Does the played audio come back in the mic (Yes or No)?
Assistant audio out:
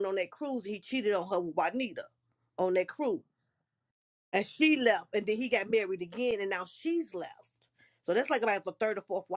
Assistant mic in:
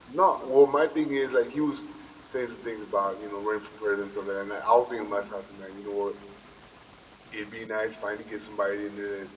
No